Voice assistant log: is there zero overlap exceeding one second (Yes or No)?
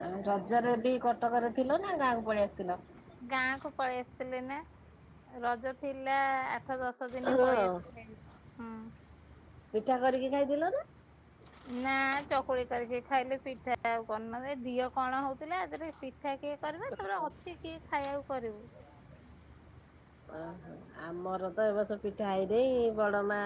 Yes